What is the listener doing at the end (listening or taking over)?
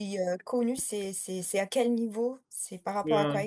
taking over